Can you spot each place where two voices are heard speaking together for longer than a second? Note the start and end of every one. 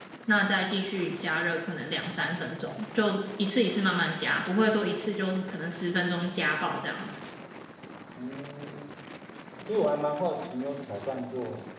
none

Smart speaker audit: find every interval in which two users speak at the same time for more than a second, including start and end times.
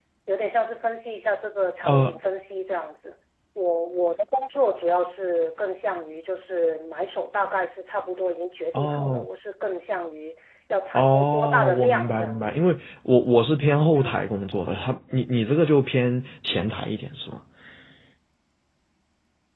10.9-12.6

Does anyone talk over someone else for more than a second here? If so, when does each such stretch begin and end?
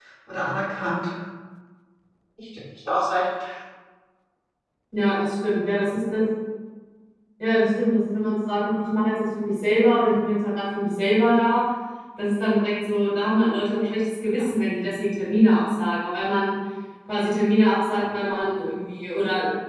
none

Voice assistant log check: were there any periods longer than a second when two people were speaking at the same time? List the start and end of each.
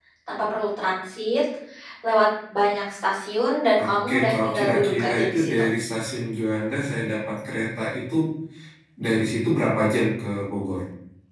3.8-5.6

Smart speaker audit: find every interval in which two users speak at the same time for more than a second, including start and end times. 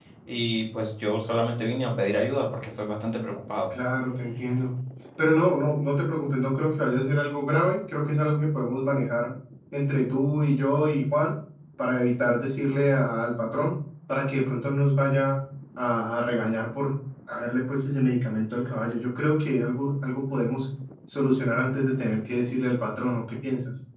none

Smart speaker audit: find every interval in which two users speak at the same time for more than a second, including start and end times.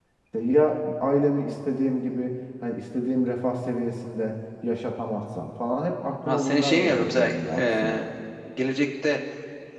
6.2-8.0

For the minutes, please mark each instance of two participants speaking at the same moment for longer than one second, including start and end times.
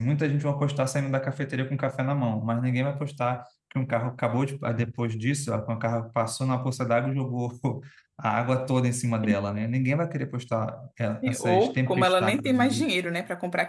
11.4-12.8

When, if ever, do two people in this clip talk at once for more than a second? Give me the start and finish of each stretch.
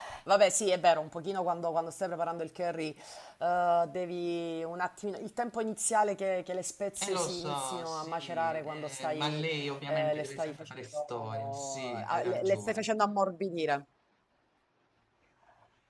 7.0-9.4, 9.9-12.9

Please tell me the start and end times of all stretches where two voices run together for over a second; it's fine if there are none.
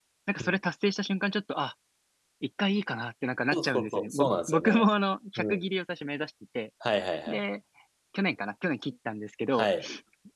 3.5-4.8

